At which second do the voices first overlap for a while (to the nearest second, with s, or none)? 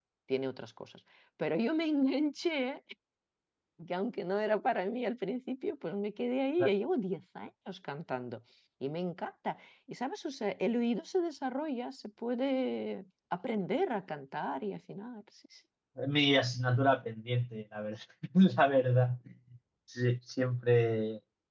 none